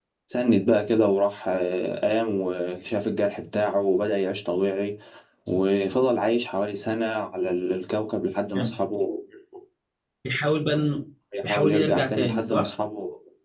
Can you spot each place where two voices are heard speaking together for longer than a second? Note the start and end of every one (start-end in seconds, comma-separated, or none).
11.5-12.7